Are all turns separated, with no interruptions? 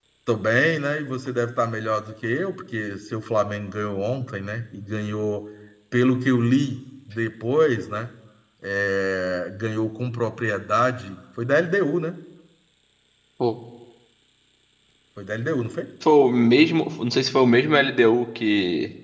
Yes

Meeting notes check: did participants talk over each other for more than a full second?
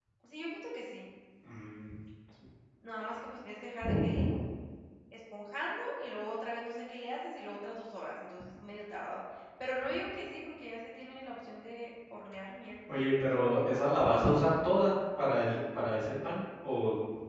No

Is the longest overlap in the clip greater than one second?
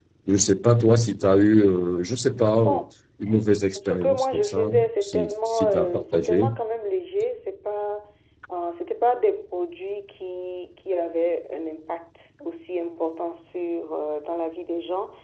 Yes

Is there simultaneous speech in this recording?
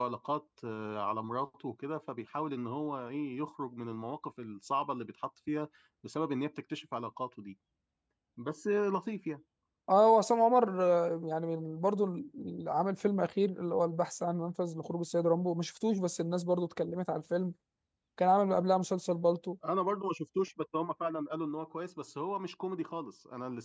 No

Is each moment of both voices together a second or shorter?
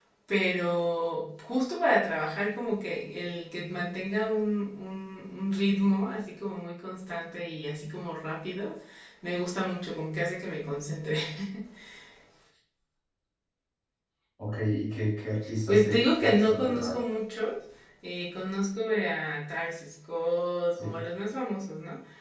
No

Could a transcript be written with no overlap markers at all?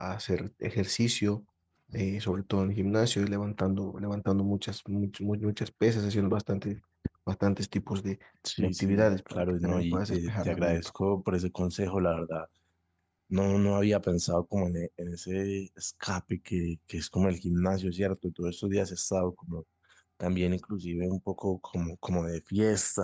No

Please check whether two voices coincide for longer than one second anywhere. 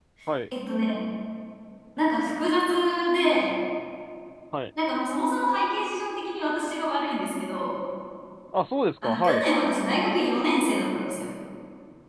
No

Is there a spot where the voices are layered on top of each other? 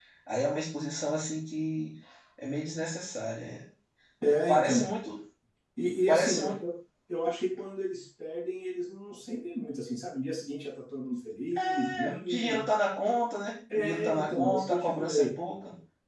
Yes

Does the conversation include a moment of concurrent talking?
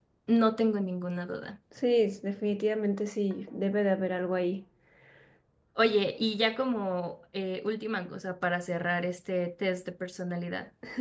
No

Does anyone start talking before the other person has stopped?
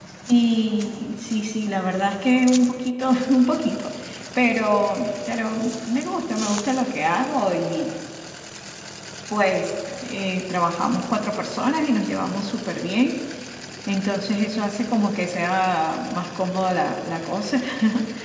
No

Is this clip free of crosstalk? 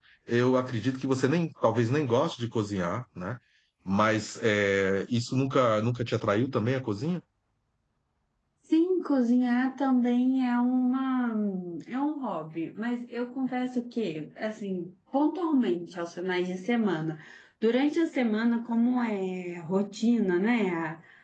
Yes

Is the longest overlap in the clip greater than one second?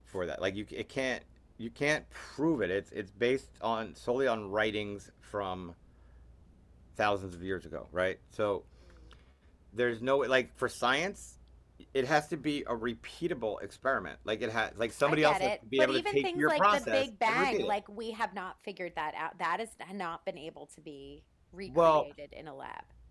Yes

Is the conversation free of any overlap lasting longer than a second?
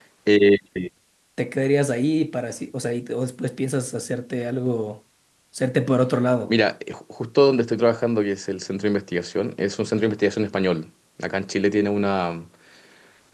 Yes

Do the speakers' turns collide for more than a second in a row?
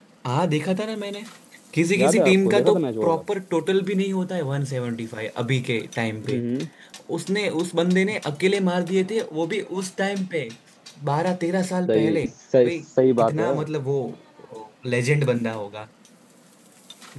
Yes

